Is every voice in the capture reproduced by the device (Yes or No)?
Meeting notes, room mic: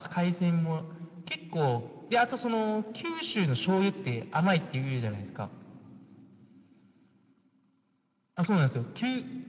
Yes